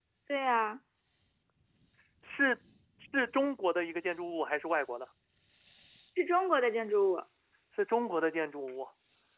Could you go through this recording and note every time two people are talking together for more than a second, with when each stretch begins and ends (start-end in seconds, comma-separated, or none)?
none